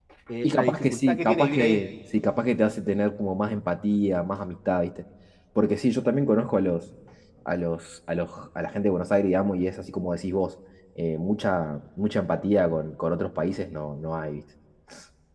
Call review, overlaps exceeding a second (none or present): present